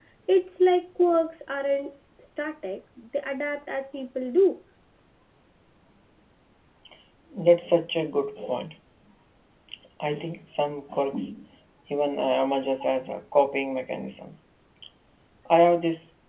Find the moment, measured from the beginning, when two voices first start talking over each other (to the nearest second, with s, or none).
none